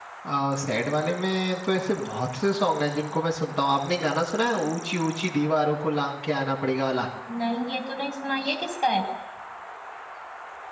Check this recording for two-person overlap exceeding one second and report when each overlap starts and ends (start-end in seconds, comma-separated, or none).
none